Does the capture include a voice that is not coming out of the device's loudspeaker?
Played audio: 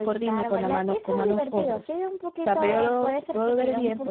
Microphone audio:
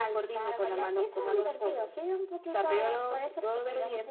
No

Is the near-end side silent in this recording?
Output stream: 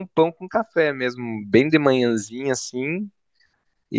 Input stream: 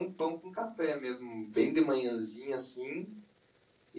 Yes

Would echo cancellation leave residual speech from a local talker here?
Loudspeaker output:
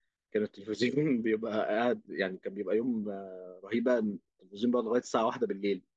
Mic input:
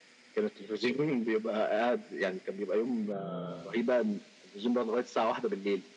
Yes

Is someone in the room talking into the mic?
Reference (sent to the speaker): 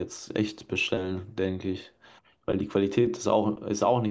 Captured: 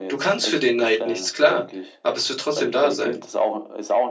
Yes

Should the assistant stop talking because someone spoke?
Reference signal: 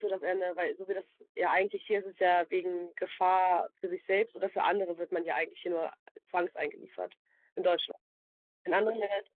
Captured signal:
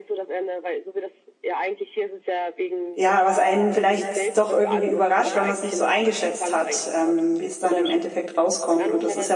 Yes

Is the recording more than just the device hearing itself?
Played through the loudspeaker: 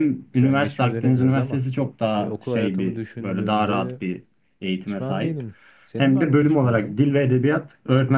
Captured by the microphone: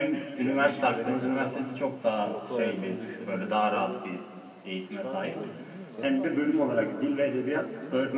Yes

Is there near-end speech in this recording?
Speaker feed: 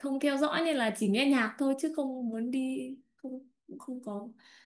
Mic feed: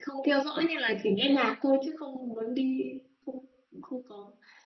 No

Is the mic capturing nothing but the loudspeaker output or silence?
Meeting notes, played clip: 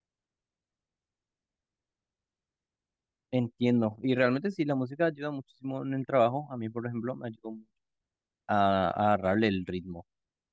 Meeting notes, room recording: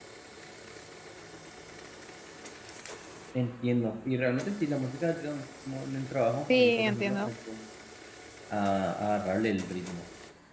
No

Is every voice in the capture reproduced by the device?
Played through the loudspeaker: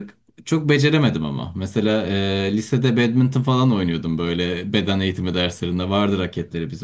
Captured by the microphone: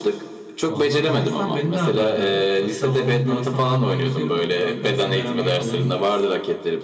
No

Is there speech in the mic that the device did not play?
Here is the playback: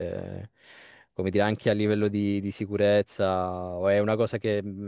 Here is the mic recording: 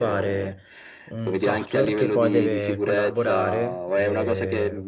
Yes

